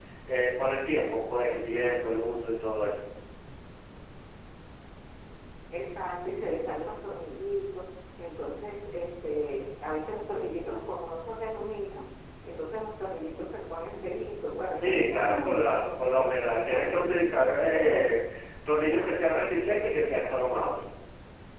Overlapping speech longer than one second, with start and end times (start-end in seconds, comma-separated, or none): 14.7-17.2